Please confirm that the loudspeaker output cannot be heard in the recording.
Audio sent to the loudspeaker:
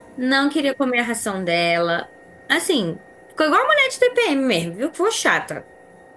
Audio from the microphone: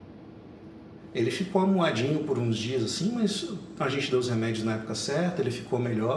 Yes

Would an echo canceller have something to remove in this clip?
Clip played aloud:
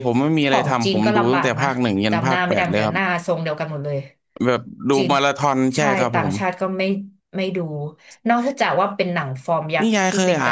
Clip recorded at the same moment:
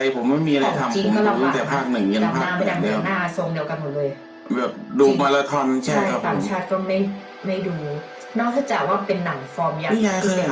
Yes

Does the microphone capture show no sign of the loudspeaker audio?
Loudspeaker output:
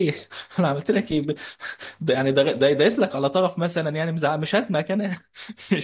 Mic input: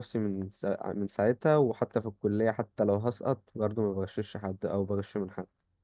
Yes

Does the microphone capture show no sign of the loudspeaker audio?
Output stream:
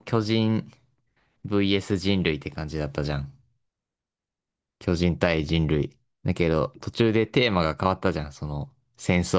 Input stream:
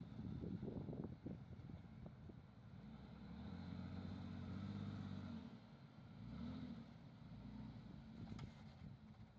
Yes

